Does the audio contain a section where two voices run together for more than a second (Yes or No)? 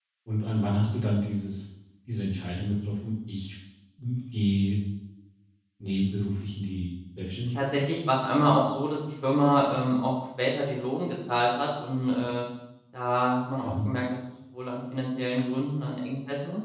No